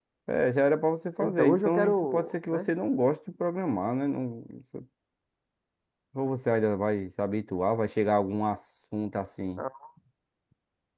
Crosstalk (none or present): present